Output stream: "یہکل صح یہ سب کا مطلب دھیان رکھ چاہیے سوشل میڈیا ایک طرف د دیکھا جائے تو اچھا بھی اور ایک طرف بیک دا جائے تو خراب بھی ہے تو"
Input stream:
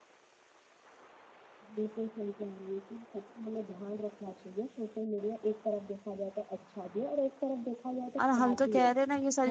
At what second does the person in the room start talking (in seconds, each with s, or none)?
8.2 s